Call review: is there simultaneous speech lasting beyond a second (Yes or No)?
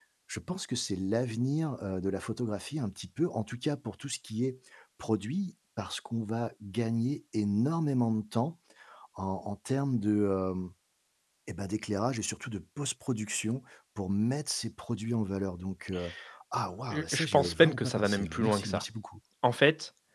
Yes